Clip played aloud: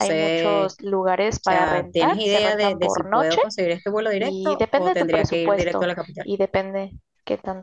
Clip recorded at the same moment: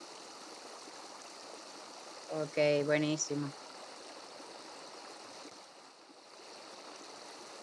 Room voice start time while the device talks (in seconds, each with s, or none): 2.2 s